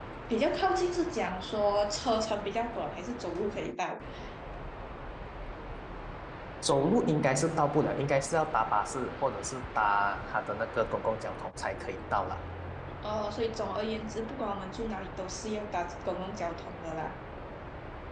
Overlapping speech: No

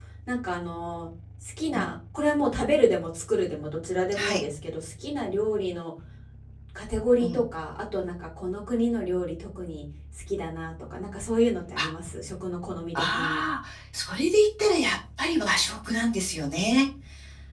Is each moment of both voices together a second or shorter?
Yes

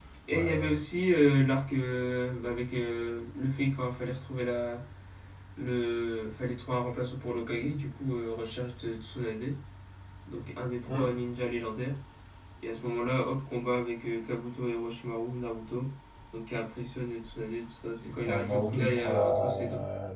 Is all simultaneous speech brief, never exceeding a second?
No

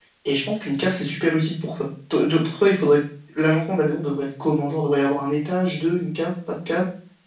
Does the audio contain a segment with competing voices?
No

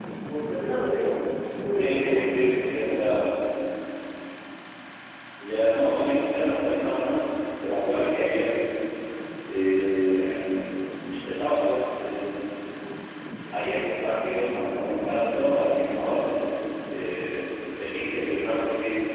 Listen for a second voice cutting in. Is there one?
Yes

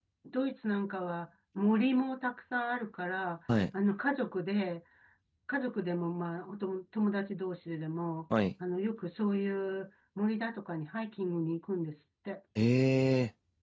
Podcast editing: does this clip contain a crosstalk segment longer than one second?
No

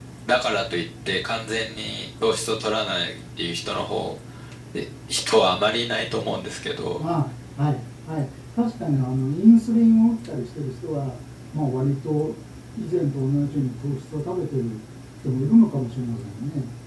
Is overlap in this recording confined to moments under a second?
Yes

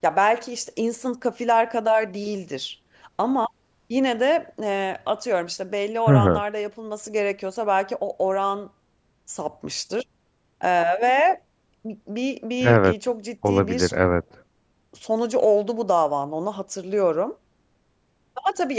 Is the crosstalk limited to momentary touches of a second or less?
Yes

